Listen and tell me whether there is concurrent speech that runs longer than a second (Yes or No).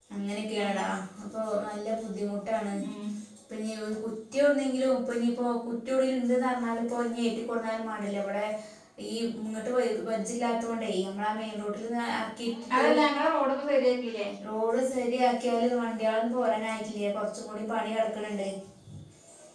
No